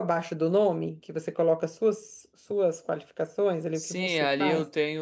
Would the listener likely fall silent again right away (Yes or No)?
No